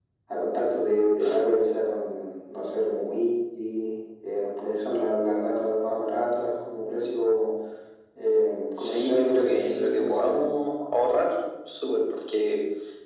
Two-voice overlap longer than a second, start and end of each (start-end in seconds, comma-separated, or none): 8.8-10.4